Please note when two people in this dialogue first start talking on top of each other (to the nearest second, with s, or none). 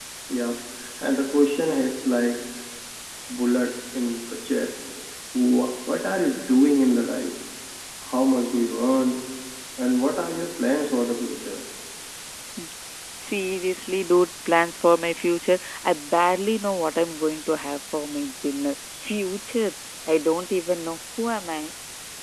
none